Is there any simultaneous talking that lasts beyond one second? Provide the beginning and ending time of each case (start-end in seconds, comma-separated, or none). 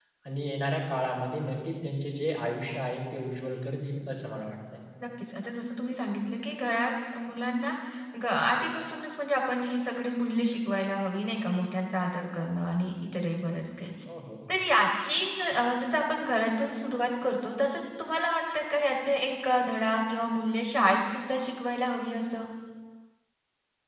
none